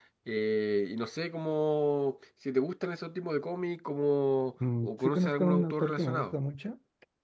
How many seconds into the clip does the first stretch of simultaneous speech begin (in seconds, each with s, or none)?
4.8 s